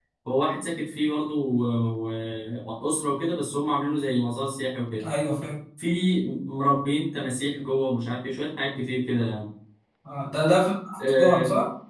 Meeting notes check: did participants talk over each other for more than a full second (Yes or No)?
No